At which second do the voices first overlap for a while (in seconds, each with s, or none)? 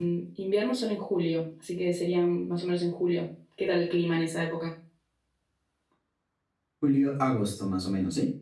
none